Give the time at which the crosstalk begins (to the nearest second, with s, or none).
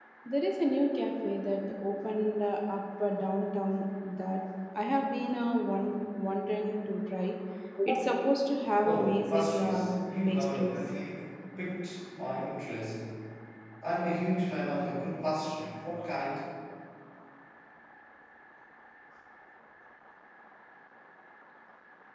9 s